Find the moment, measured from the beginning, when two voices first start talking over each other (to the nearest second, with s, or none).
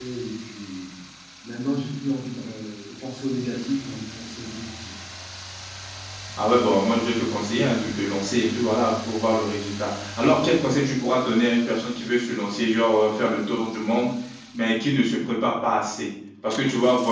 none